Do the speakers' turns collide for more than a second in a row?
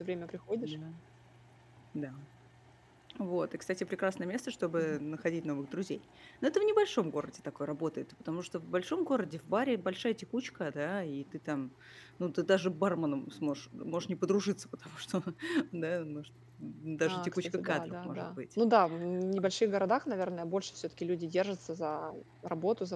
Yes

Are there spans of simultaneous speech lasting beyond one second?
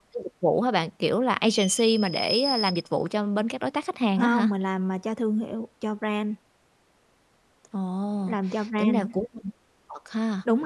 No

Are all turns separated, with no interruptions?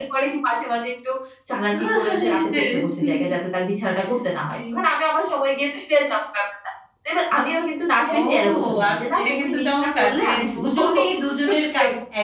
No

